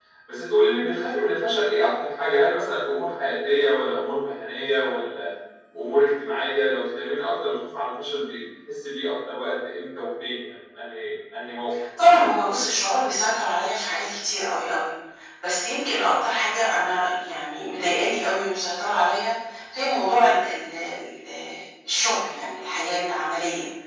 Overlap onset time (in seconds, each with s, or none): none